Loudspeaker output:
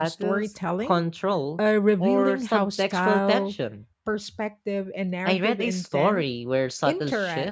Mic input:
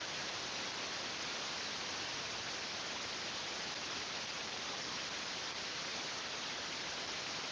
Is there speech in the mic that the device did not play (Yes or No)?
No